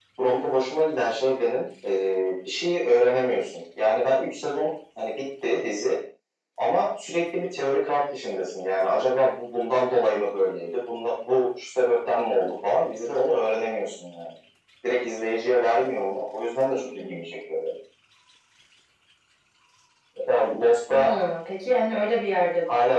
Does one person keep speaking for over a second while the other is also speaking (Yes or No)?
No